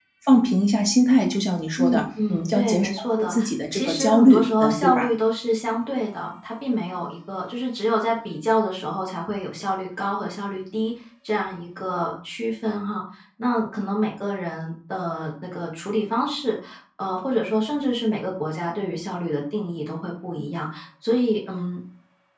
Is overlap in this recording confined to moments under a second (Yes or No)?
No